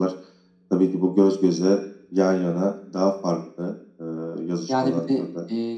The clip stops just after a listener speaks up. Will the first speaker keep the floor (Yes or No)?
No